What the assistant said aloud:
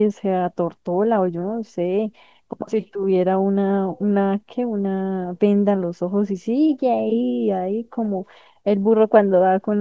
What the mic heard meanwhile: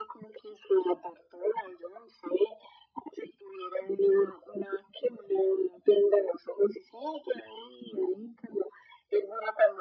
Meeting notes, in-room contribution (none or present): none